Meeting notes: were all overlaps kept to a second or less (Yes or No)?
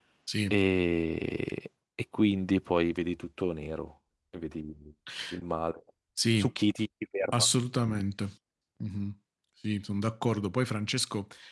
Yes